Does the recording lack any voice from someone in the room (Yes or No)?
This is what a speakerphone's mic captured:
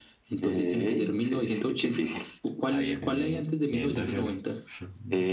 No